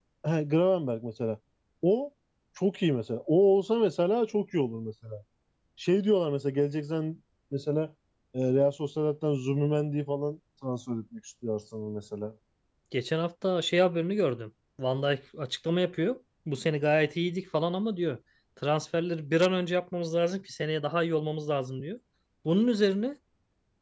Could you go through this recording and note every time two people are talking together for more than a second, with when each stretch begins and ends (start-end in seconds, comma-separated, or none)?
none